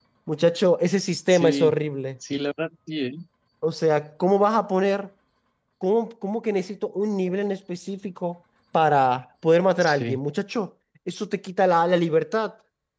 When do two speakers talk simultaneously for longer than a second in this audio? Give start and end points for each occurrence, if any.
none

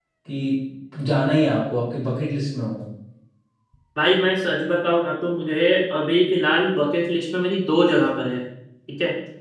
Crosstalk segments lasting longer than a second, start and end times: none

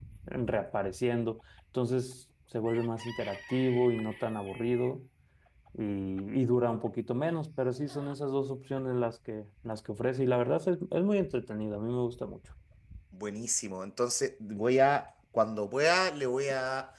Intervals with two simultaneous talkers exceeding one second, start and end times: none

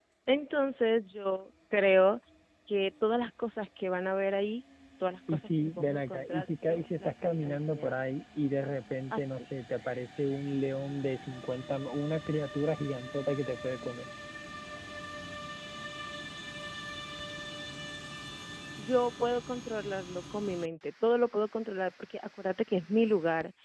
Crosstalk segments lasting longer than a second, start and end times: 5.3-7.9

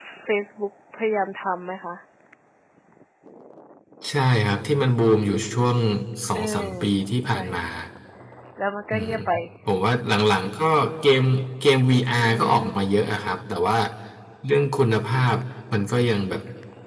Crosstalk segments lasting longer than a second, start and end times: none

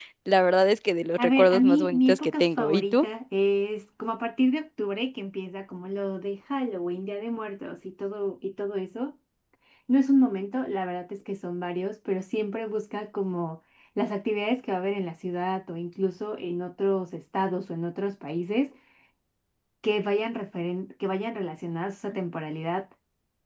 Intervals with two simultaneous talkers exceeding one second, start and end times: 1.2-3.1

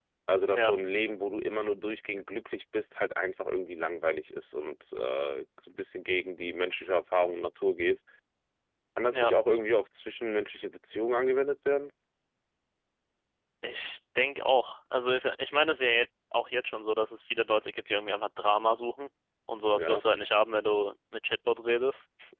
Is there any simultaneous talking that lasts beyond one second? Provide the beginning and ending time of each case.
none

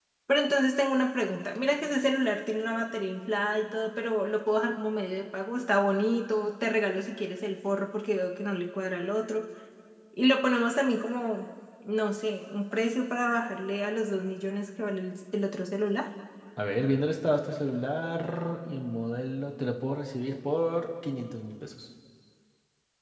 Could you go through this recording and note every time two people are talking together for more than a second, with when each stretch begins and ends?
none

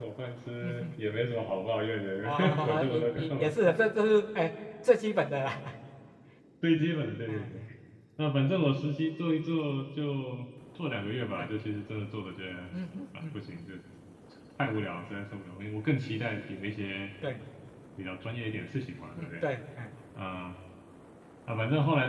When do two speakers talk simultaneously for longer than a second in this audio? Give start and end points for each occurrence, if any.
2.2-3.5

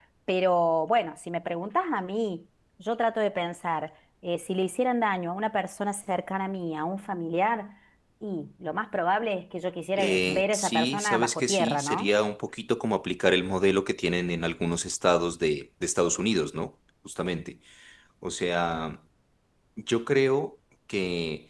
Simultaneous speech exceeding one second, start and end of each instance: 10.0-12.1

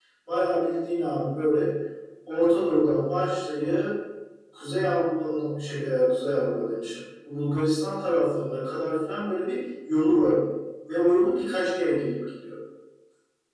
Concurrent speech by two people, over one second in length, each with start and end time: none

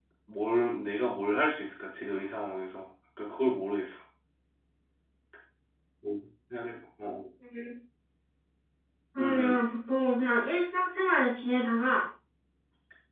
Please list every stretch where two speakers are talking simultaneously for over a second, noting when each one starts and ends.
none

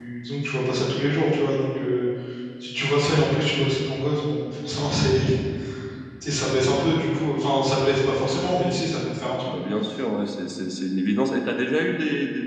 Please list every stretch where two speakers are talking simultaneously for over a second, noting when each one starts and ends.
none

